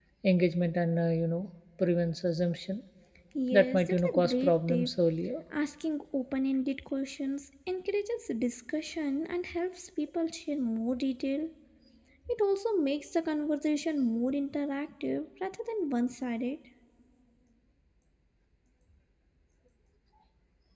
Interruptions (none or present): present